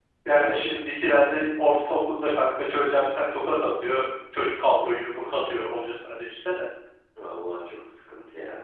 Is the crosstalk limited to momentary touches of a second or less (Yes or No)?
Yes